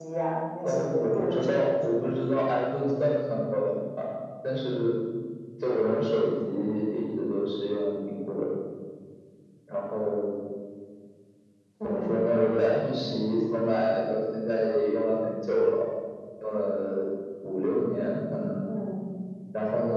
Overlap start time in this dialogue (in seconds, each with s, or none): 0.6 s